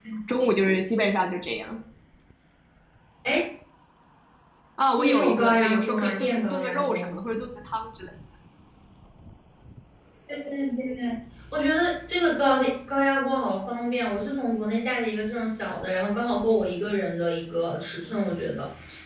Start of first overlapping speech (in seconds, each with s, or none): 5.0 s